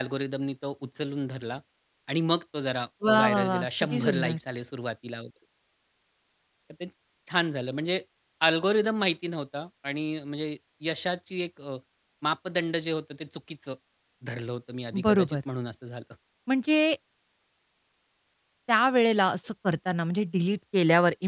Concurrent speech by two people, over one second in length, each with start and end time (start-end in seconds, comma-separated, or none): 3.1-4.4